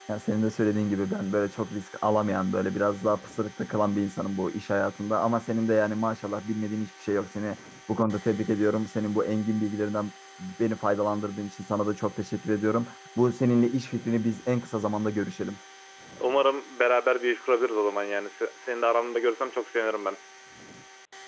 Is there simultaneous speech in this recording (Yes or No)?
No